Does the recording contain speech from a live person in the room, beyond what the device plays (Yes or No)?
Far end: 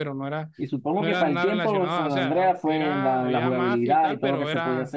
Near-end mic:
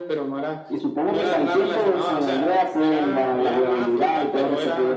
No